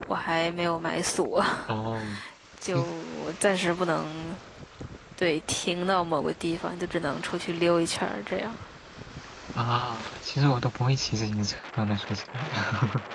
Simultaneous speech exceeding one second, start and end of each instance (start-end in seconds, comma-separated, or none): none